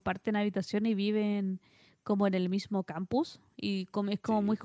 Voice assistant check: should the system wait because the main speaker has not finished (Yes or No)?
Yes